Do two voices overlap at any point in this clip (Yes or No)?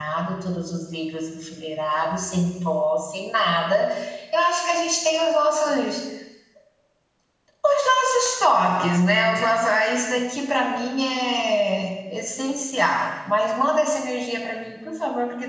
No